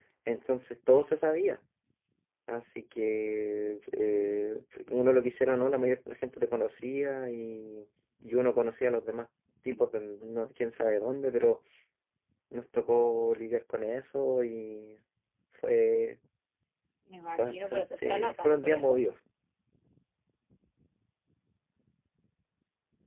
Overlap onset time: 17 s

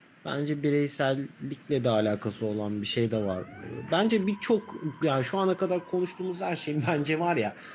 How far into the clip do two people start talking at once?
none

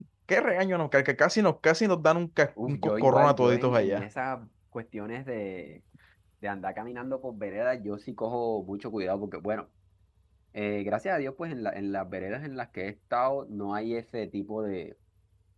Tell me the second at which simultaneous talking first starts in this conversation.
3 s

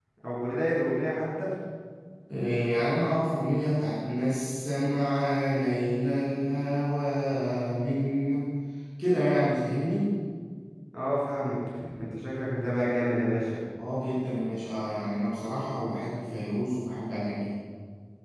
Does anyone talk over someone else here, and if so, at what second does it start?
none

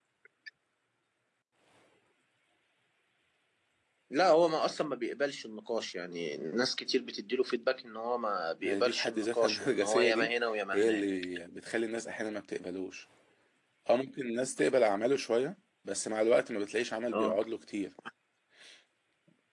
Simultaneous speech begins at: 9 s

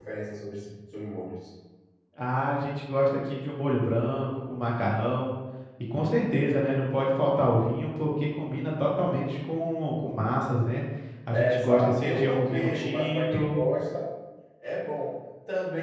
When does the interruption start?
11 s

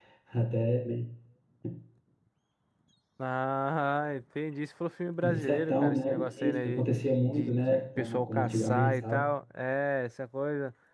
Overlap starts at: 5 s

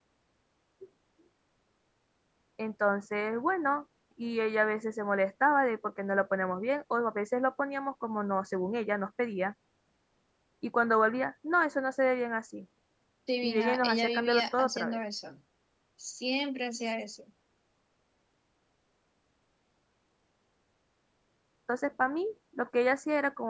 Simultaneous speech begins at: 13 s

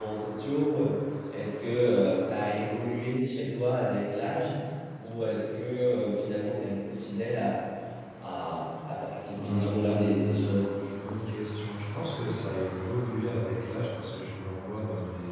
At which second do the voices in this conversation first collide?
9 s

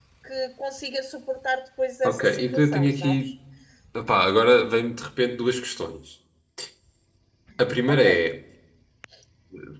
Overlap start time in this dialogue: 2 s

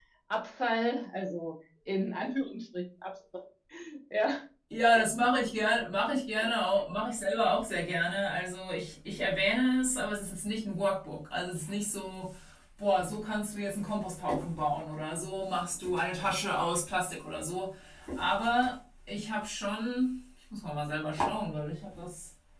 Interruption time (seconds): none

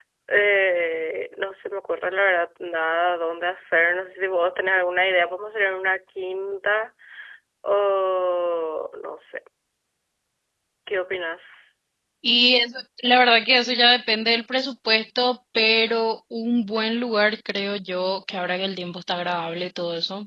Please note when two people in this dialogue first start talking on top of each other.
none

